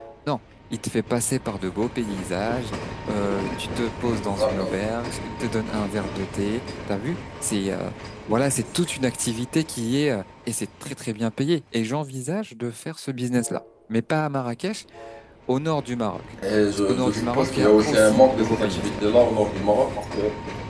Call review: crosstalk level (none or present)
present